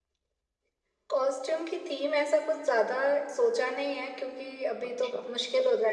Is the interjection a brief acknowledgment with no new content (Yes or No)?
Yes